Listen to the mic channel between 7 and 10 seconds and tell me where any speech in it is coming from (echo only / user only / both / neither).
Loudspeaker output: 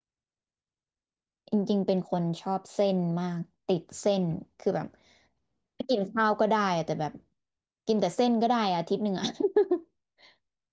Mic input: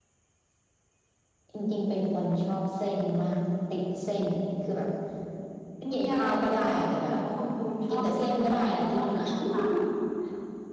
both